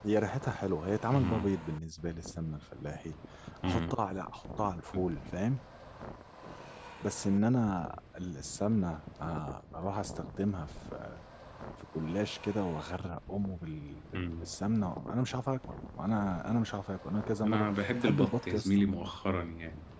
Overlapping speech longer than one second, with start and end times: 17.4-18.8

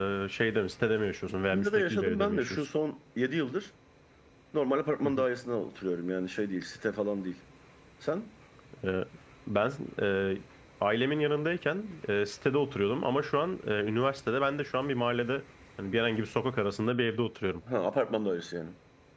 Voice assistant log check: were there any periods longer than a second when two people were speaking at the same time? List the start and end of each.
1.3-2.6

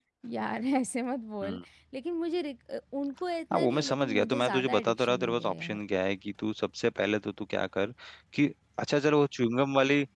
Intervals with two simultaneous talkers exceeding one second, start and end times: 3.5-5.8

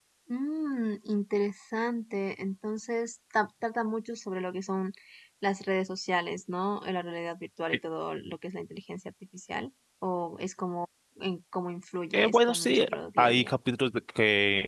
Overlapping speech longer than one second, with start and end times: 12.1-13.5

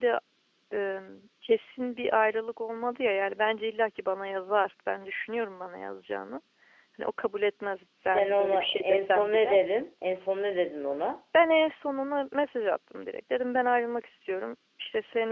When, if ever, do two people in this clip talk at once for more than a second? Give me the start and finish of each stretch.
8.1-9.6

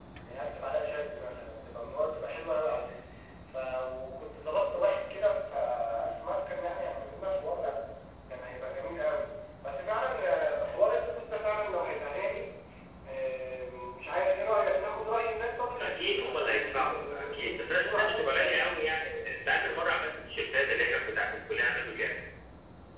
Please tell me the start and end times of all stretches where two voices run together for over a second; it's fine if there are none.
15.8-18.5

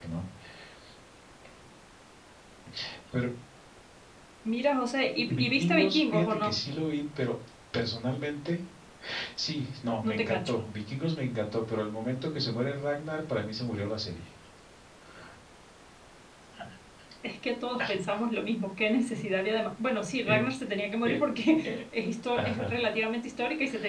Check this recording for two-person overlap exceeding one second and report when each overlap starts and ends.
5.3-6.6

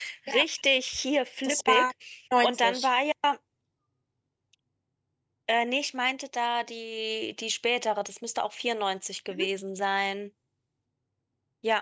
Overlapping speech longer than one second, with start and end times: none

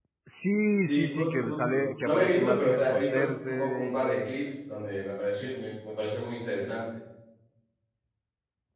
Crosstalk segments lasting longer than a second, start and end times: 0.9-4.4

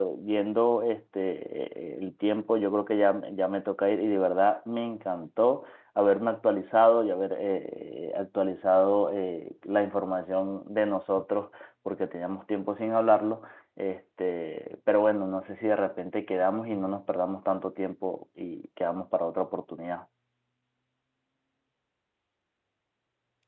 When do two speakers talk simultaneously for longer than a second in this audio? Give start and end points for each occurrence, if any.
none

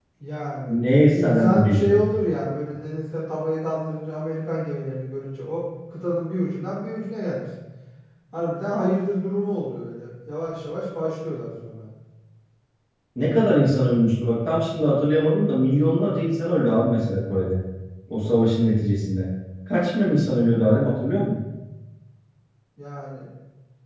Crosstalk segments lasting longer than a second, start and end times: 0.7-1.9

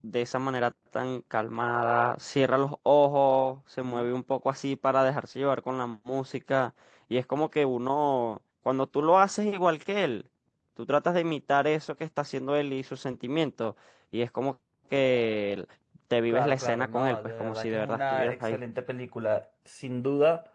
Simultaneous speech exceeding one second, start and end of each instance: 16.3-18.6

